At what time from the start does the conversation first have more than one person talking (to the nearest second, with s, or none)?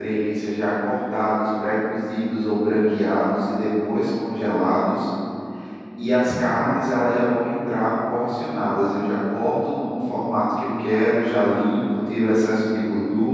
none